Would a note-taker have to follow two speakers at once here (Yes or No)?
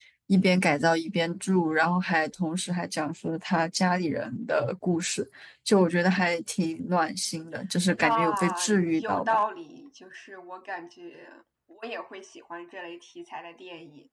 Yes